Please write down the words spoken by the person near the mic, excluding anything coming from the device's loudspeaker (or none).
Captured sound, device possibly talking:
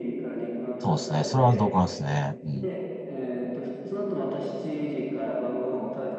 そうですね。それは同感ですね。うん。